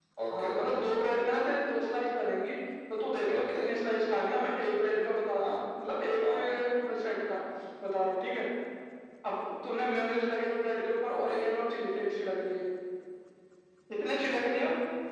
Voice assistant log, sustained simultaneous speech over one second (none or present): none